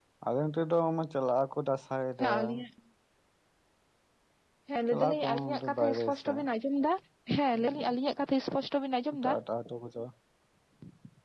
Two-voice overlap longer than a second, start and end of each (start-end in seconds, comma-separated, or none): 4.9-6.4